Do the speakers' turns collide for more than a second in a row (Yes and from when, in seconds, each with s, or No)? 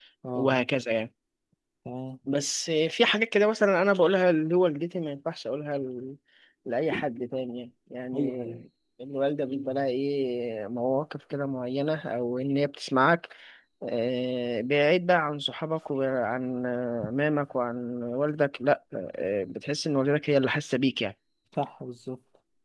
No